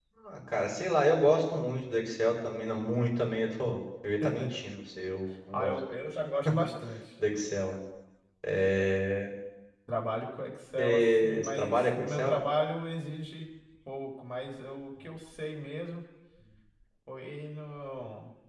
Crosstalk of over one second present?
Yes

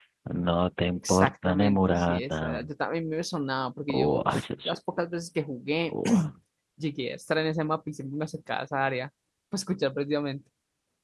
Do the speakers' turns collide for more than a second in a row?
Yes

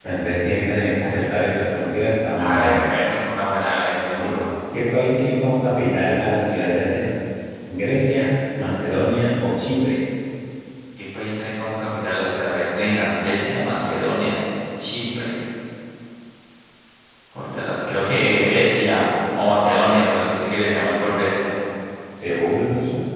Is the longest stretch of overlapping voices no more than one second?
Yes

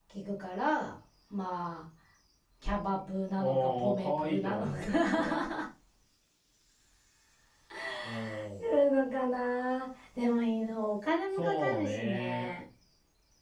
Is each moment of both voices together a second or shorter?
No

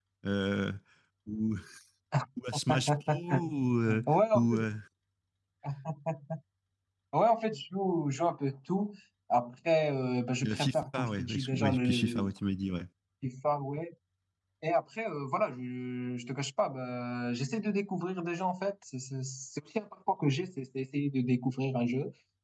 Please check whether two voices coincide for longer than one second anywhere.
Yes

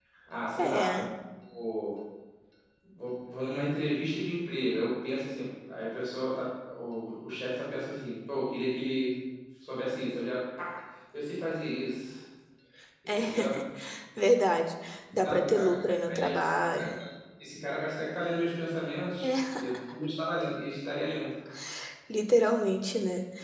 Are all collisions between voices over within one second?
No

